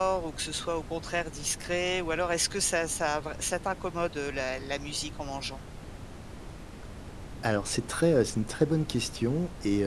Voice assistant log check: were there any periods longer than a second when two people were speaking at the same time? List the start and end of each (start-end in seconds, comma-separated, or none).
none